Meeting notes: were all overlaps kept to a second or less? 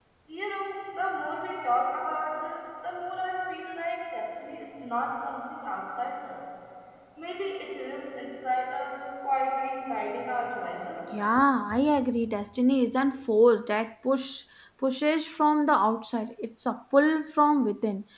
Yes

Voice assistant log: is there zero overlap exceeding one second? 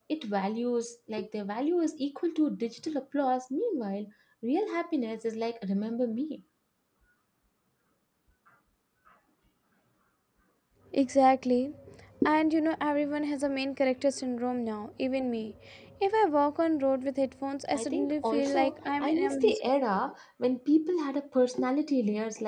No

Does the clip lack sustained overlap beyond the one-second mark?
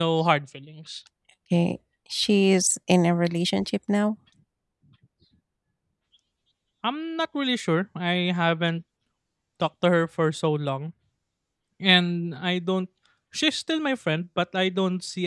Yes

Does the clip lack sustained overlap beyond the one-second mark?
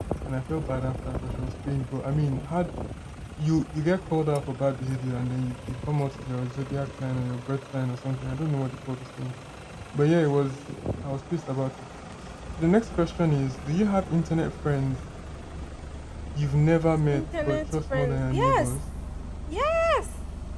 No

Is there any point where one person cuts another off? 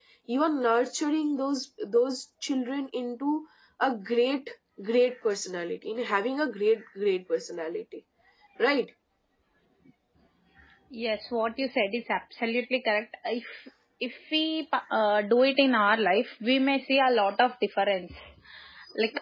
No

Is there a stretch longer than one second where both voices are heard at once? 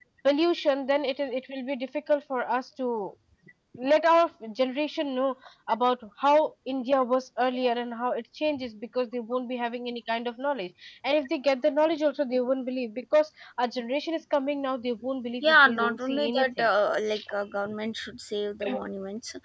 Yes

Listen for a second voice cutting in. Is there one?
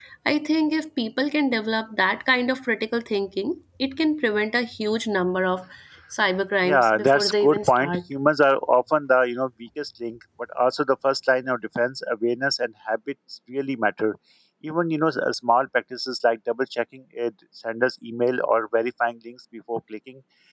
Yes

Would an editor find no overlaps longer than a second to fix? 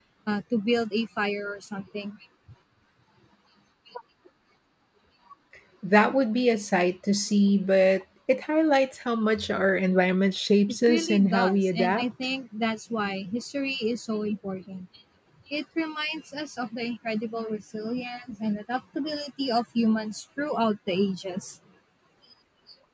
No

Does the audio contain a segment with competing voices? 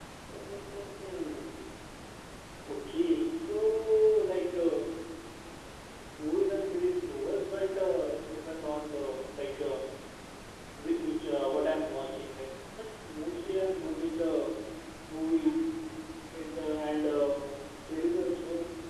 No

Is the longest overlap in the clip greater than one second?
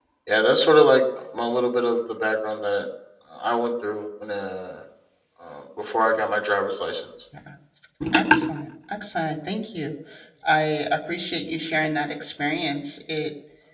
No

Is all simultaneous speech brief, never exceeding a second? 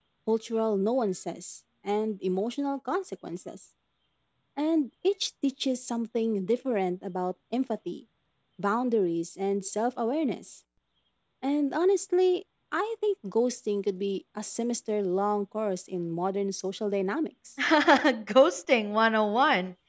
Yes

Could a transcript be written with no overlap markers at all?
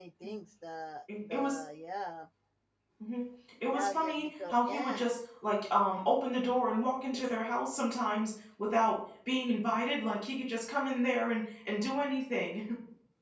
No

